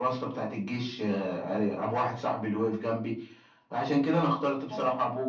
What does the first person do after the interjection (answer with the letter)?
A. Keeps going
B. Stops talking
A